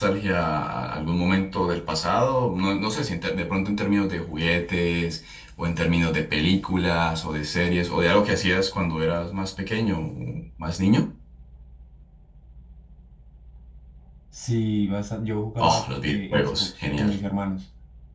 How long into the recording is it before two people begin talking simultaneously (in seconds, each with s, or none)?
15.6 s